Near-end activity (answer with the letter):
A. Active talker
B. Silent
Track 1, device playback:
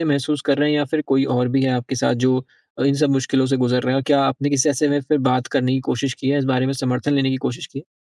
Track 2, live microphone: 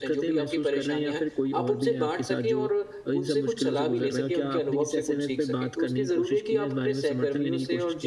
A